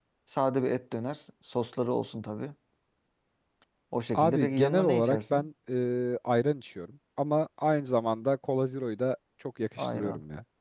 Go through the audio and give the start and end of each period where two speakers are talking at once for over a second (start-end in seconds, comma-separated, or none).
4.1-5.5